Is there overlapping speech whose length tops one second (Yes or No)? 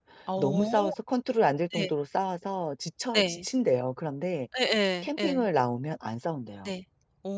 No